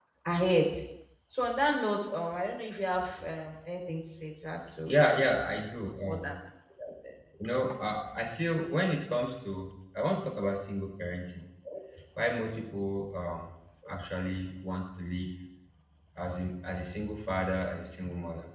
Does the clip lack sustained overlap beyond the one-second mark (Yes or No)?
Yes